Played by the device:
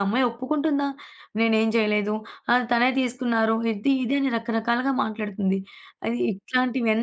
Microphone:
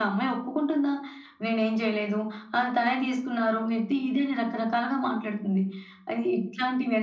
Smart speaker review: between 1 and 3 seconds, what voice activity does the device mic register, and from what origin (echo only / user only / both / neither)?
echo only